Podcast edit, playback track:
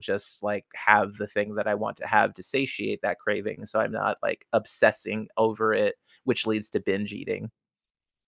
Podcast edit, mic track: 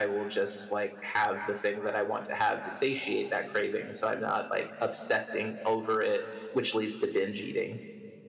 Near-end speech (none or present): none